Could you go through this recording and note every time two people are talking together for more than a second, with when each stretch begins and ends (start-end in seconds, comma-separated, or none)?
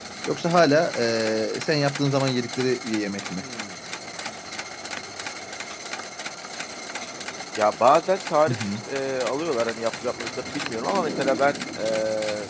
none